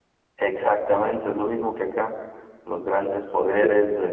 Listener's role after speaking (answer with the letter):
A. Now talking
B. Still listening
B